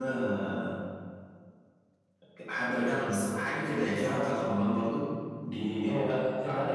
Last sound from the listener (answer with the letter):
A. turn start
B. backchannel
A